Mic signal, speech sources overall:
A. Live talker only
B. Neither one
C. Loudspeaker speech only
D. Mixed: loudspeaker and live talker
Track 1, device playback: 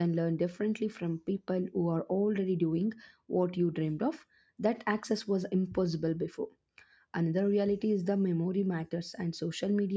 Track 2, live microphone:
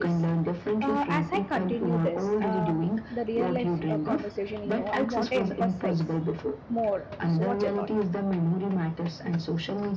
D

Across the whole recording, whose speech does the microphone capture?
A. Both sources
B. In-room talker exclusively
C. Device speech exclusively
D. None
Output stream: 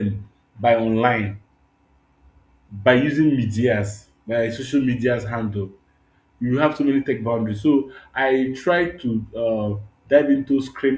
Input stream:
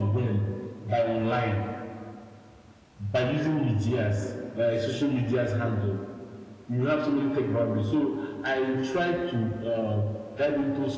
C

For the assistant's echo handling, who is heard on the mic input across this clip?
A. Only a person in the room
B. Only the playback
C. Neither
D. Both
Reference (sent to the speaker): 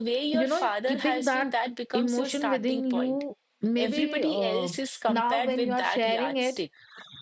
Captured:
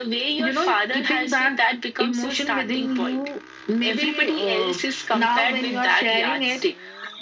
B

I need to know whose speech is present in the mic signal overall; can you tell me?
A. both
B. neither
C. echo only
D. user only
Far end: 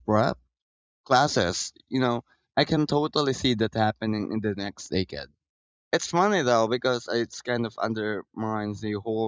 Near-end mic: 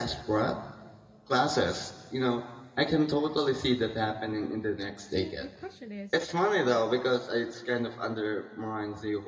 A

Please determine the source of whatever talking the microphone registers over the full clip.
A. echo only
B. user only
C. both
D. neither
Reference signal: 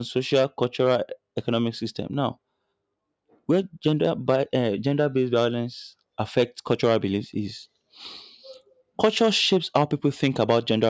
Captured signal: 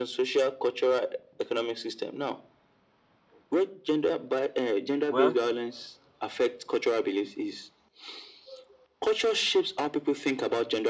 C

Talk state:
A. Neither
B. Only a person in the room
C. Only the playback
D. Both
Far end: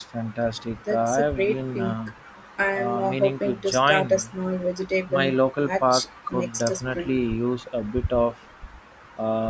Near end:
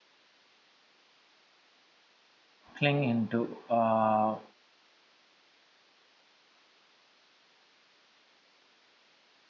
B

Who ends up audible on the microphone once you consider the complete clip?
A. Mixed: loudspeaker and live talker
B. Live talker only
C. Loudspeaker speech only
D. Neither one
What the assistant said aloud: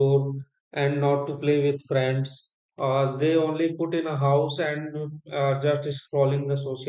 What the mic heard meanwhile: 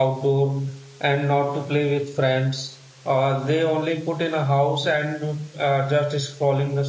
C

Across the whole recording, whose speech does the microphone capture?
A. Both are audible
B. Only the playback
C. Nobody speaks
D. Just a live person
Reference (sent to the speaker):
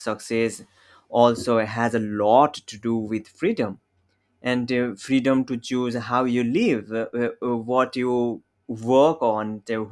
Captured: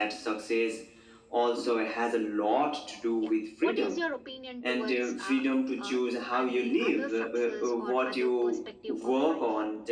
A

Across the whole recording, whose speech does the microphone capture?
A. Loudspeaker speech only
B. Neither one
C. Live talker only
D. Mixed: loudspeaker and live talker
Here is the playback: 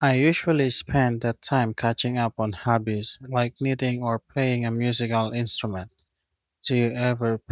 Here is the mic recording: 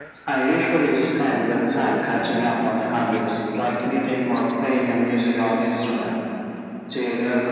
D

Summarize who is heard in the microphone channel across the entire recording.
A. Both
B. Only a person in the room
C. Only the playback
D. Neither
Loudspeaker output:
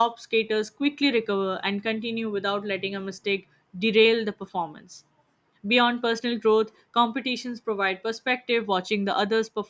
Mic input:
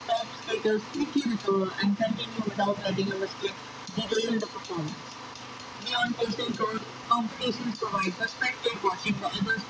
C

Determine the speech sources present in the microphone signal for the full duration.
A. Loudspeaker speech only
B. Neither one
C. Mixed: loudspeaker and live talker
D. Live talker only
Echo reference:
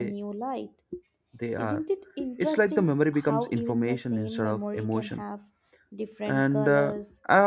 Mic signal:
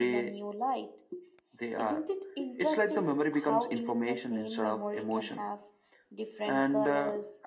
A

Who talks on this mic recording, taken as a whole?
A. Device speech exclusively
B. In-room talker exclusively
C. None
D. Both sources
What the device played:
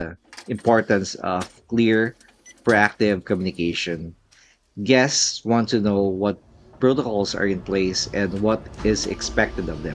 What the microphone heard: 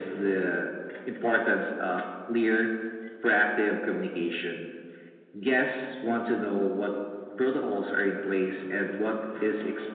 A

